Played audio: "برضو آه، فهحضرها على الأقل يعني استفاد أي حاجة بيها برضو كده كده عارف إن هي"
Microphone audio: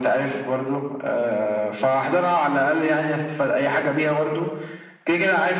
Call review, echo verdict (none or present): present